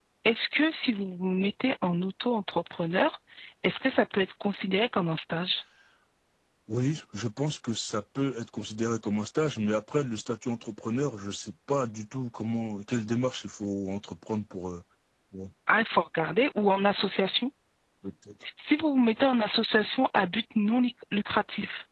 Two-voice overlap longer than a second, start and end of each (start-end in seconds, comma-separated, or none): none